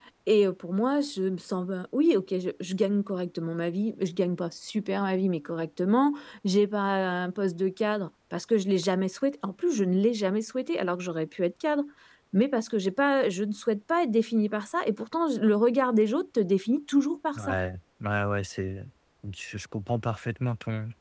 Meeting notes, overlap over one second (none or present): none